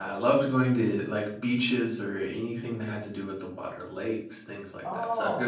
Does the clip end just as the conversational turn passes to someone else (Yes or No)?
No